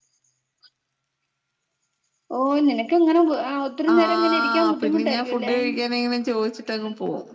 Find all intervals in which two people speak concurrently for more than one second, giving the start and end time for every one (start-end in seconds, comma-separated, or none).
3.9-5.5